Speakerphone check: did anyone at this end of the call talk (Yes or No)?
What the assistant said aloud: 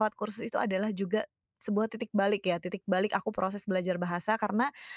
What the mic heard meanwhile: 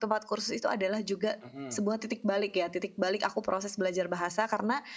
Yes